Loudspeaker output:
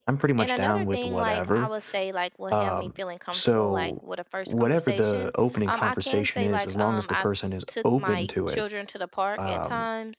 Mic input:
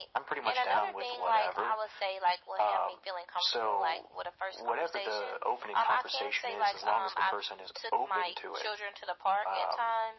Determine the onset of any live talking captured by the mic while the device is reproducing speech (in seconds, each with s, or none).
none